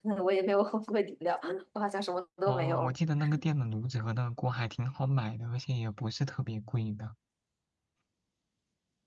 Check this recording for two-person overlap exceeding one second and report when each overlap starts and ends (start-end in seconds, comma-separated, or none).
none